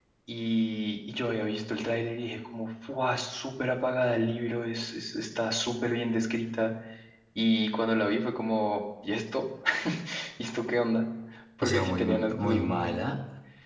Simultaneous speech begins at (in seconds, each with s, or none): 11.6 s